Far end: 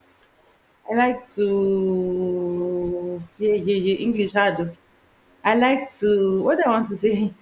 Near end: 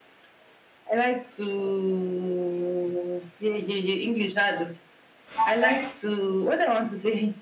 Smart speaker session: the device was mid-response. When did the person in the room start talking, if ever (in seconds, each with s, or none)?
5.4 s